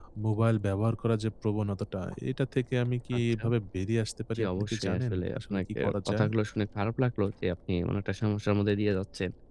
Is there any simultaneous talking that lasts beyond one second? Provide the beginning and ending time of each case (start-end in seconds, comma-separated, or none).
4.3-6.3